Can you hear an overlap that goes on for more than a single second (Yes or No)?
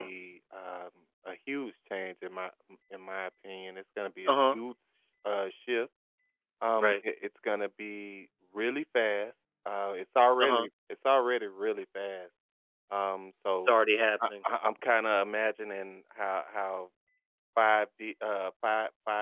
No